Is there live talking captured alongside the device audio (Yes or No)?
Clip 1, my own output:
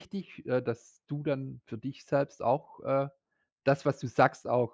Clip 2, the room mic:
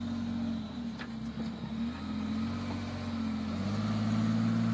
No